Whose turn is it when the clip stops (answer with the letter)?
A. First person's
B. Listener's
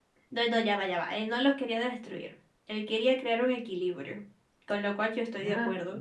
B